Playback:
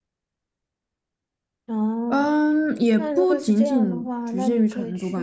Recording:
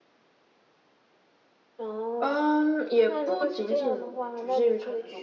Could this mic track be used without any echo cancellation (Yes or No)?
No